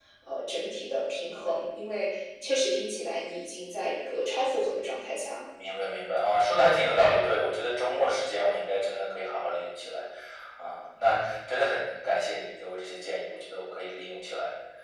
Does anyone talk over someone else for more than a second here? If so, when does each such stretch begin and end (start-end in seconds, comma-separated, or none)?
none